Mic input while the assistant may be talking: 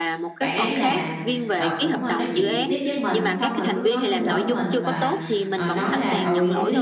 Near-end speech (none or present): present